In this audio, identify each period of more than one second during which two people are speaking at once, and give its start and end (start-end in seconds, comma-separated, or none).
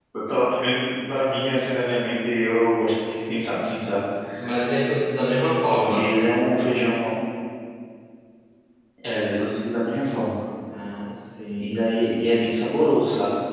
none